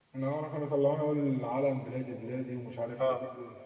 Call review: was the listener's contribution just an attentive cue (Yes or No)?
No